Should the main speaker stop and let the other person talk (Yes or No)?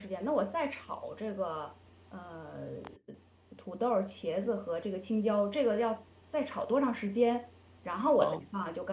No